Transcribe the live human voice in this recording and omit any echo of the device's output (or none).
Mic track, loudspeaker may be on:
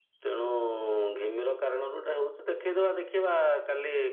none